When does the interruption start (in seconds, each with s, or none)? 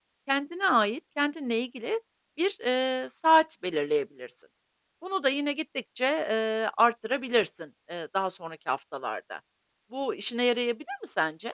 none